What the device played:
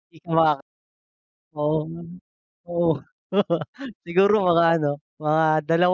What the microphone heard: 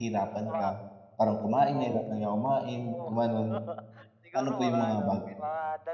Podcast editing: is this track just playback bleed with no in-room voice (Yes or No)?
No